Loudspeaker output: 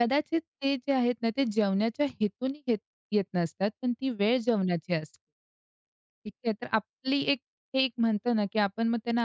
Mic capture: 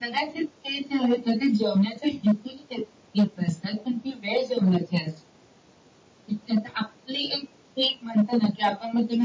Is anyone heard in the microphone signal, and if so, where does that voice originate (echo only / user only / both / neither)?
echo only